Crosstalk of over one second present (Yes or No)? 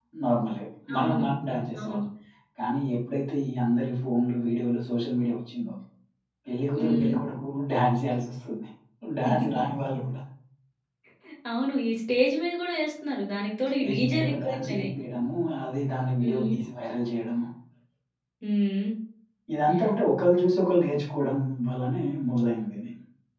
Yes